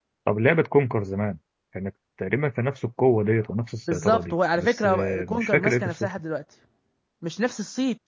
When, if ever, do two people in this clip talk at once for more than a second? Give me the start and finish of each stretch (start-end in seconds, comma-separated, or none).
3.9-6.1